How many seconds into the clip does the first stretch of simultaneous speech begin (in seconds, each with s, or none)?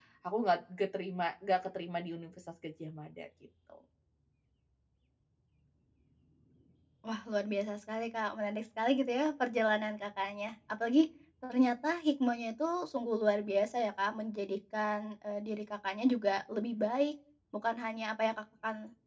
none